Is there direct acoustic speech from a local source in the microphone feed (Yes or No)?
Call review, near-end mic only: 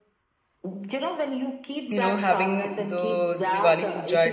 Yes